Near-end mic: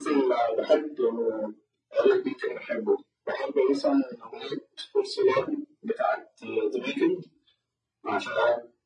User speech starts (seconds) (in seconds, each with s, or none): none